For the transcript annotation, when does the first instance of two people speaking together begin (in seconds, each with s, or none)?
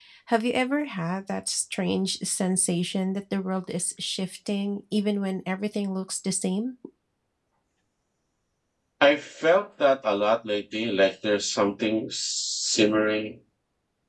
none